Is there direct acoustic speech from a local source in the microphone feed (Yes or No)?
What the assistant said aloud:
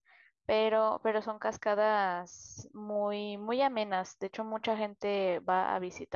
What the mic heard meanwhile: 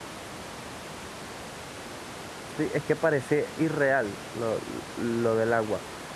Yes